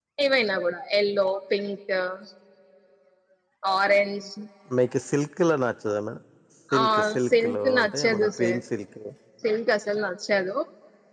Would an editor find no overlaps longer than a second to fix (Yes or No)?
No